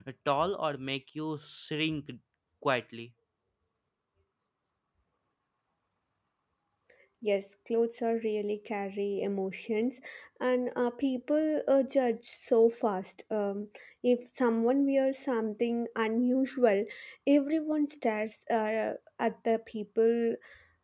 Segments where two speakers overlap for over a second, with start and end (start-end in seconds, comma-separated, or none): none